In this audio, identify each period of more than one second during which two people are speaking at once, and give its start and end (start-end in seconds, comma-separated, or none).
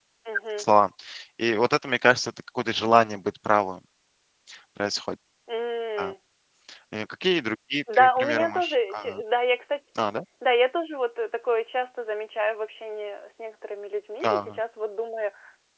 7.9-9.2